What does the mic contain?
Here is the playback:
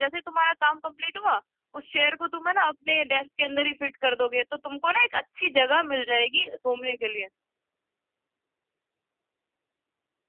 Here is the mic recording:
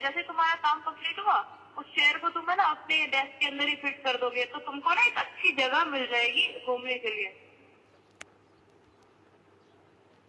echo only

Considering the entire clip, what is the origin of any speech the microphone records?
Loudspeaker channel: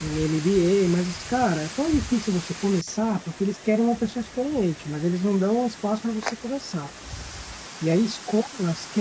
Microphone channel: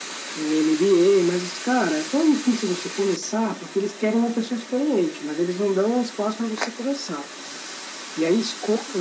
echo only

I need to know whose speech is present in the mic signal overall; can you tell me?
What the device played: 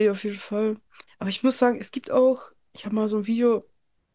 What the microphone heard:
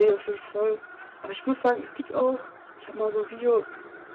echo only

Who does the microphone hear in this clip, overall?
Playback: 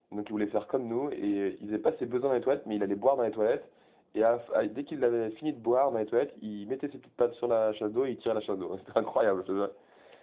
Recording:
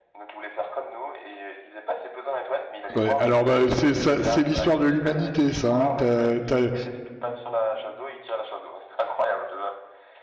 both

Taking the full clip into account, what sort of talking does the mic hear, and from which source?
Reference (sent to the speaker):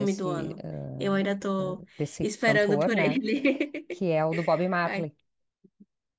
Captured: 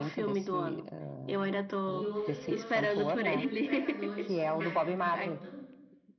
both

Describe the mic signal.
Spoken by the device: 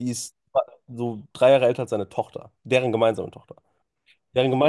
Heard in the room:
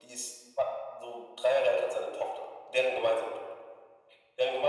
echo only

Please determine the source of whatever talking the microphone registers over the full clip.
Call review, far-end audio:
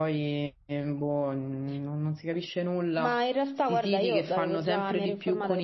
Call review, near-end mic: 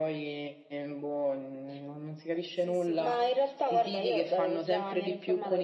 both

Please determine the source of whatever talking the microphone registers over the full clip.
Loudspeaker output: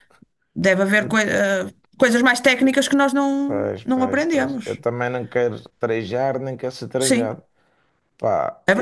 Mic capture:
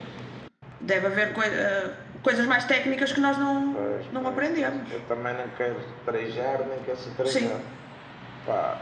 echo only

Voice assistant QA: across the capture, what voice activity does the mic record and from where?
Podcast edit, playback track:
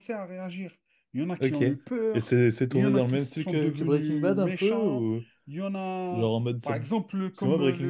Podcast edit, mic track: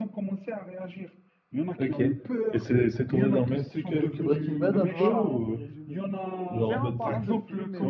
both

